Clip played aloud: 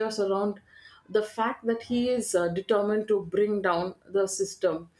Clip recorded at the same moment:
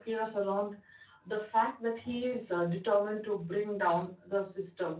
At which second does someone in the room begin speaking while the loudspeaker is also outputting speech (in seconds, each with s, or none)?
none